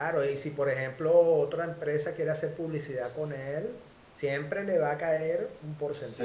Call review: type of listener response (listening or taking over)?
taking over